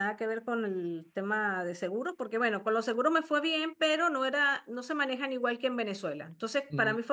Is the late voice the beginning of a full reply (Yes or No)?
No